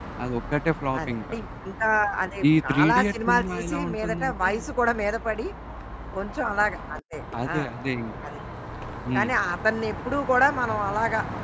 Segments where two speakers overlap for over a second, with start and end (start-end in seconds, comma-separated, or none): 2.7-4.5